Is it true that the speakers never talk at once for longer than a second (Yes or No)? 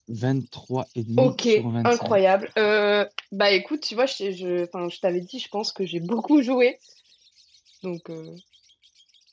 Yes